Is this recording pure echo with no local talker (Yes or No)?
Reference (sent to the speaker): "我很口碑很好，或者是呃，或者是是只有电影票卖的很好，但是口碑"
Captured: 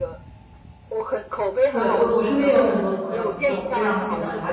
No